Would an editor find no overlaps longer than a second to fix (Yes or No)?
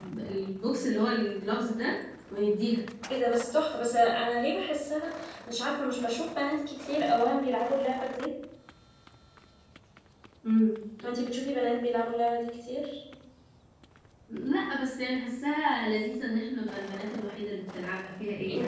Yes